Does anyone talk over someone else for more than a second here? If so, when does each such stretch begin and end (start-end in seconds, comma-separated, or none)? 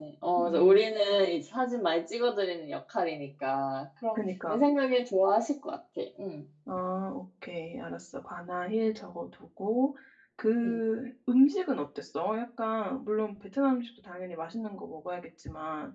none